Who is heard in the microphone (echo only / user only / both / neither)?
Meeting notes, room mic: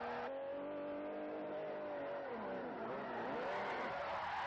neither